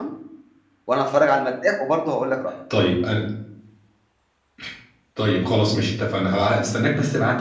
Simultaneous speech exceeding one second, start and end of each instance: none

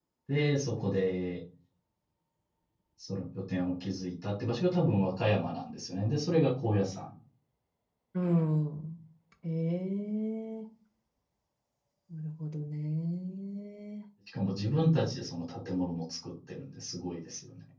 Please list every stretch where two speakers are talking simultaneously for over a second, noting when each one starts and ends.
none

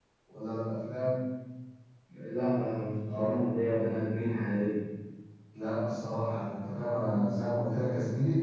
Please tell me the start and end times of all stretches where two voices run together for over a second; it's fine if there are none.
none

